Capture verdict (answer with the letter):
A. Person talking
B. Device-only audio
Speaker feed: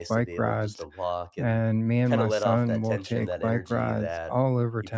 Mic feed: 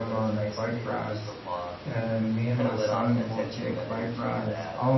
B